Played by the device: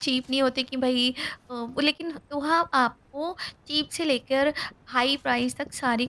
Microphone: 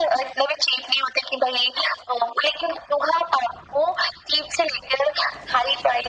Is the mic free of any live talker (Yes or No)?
Yes